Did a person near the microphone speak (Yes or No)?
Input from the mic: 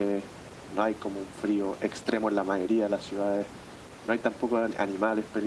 No